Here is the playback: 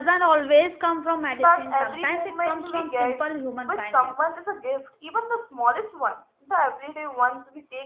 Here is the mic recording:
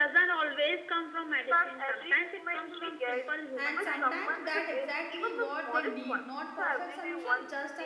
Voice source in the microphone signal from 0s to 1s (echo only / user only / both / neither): echo only